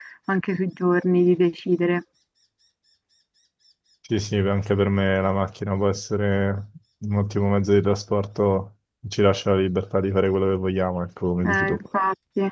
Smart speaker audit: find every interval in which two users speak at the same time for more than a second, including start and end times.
none

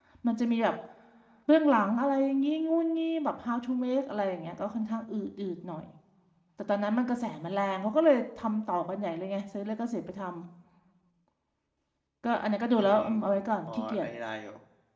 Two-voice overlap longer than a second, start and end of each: 12.8-14.1

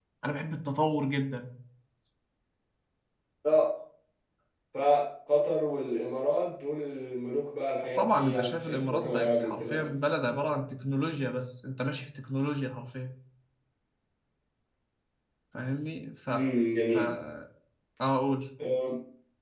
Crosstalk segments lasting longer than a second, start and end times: 8.0-9.9

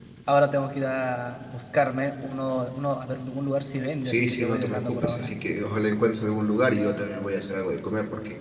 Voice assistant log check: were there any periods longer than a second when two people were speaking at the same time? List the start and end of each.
4.0-5.3

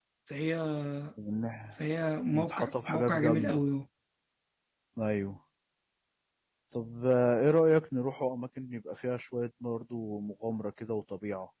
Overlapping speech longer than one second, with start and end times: 2.3-3.6

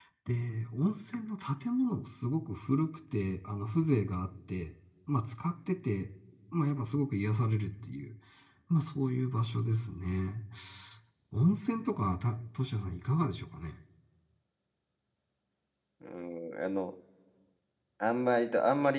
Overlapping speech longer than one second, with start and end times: none

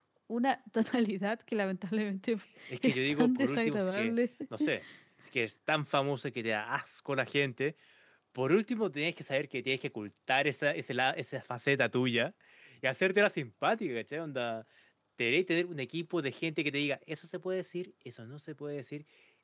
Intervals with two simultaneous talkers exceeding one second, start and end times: 2.8-4.1

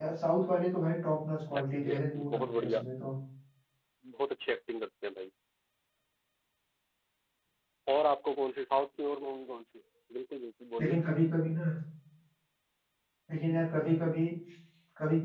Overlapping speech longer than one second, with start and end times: 1.6-2.8

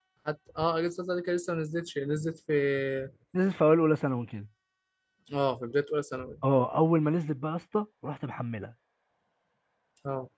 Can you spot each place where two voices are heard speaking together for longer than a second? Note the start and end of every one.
none

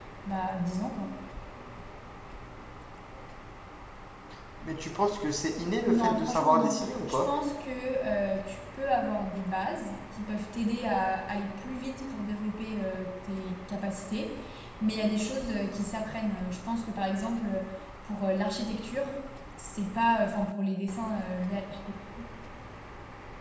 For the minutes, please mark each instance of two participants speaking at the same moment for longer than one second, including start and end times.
5.8-7.3

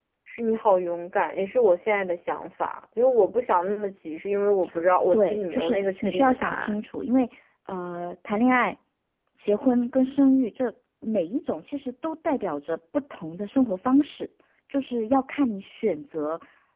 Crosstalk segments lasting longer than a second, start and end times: 5.1-6.7

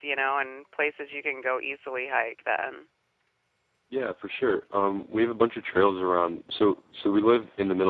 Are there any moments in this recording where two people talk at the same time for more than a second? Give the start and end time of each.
none

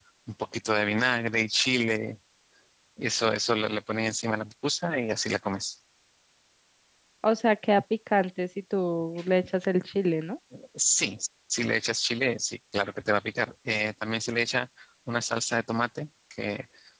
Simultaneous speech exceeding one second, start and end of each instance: none

